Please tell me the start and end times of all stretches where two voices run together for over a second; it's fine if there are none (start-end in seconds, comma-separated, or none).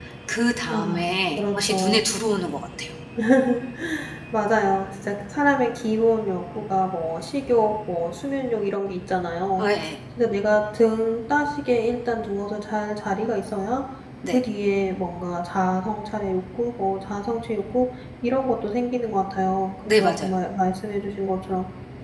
0.7-2.0